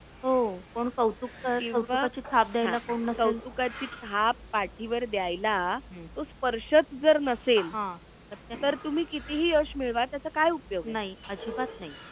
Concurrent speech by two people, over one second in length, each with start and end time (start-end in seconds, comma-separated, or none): none